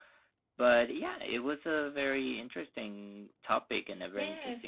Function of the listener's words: taking over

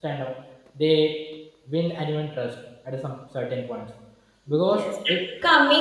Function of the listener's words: taking over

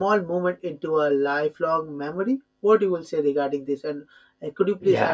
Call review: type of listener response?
taking over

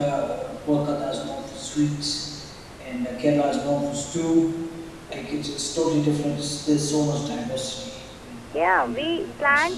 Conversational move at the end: taking over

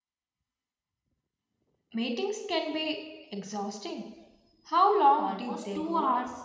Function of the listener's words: taking over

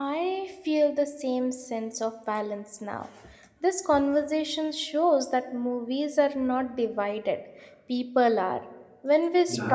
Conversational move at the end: listening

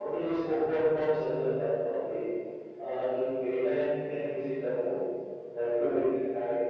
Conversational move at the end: listening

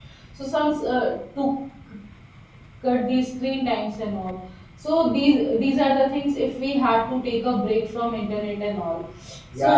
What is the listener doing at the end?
taking over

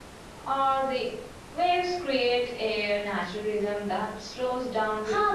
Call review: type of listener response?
taking over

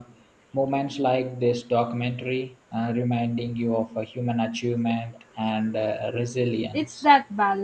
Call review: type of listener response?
taking over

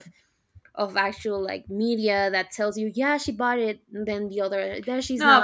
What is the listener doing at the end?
taking over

